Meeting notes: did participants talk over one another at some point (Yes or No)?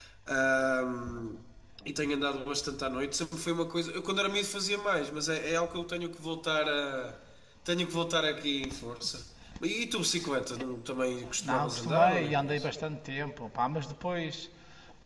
Yes